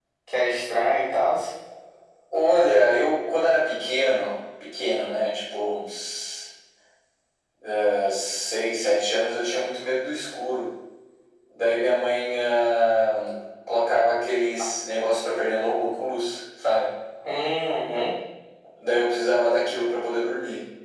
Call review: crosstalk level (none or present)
none